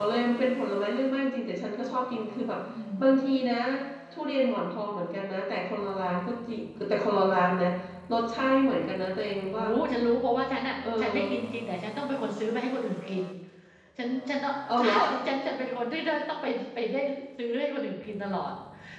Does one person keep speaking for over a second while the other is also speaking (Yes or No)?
No